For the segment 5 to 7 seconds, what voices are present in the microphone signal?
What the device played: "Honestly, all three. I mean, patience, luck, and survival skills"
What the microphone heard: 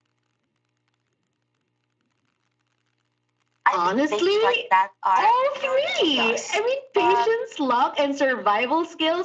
both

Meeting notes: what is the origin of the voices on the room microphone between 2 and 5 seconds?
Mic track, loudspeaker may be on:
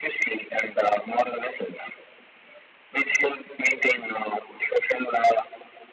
echo only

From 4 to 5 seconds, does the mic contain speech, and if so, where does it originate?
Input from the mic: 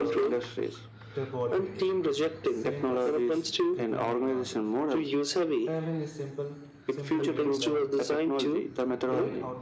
both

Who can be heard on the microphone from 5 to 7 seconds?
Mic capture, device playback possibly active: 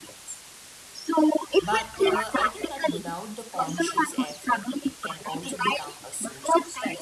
both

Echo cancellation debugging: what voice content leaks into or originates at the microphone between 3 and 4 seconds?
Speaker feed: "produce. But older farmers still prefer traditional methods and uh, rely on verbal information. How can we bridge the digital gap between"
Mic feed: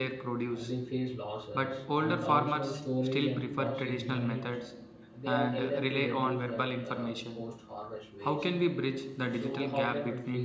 both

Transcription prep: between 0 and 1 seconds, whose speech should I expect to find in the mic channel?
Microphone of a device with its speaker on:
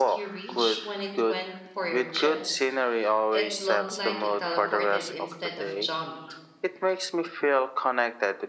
both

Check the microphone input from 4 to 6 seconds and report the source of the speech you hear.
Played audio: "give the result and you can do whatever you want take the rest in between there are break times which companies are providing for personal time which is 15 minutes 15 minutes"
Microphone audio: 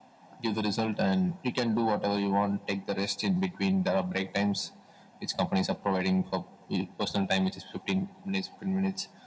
echo only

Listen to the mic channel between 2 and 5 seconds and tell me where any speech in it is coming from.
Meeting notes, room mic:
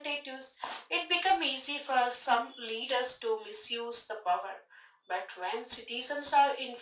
echo only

